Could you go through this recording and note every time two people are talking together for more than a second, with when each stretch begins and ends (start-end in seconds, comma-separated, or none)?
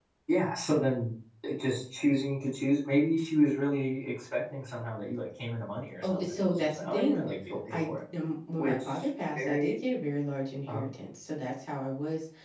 6.0-7.3